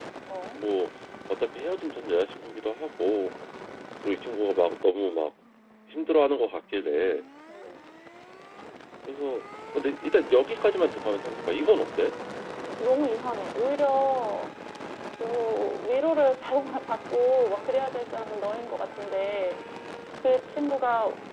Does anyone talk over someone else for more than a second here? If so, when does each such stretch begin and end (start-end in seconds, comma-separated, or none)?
none